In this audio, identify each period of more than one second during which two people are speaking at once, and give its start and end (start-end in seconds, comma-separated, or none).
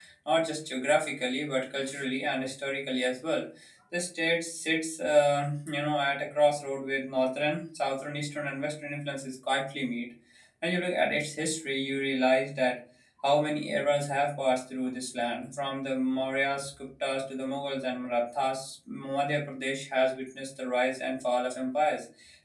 none